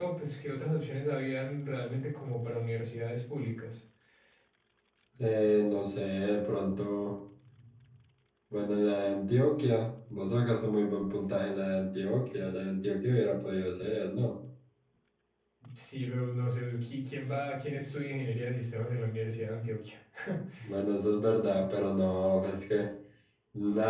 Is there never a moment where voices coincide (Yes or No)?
Yes